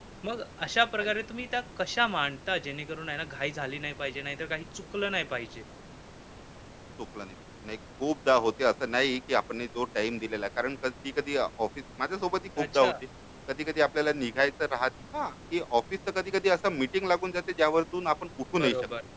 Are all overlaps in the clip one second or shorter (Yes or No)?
Yes